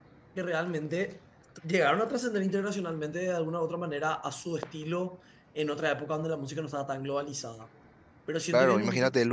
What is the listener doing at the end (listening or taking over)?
taking over